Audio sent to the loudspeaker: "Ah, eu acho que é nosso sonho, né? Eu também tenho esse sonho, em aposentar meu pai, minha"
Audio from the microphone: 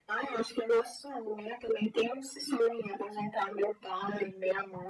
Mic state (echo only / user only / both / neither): echo only